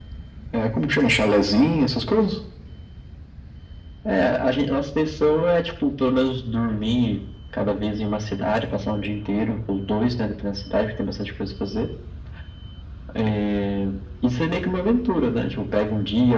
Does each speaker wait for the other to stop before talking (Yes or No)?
Yes